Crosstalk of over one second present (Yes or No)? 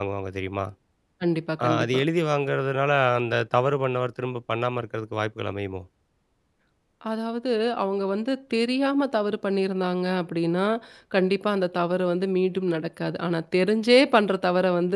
No